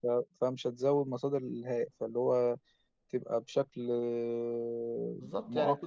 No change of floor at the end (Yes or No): No